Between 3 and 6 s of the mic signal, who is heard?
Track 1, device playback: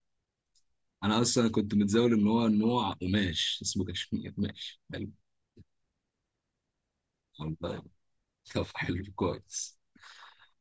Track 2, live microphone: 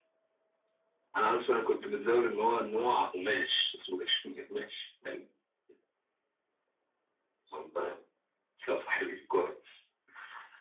echo only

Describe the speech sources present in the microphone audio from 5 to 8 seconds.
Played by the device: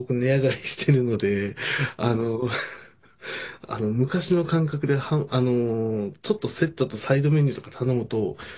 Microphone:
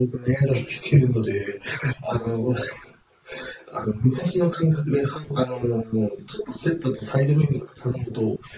echo only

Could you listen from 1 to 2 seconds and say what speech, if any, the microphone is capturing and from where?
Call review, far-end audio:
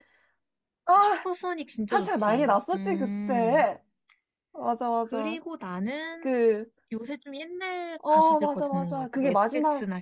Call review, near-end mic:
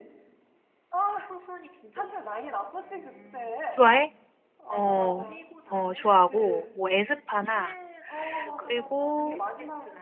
echo only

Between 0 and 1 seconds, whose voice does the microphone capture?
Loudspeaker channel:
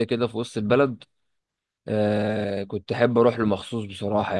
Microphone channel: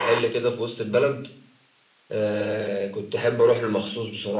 echo only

